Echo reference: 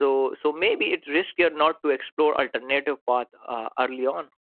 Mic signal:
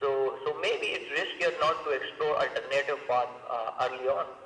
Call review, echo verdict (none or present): present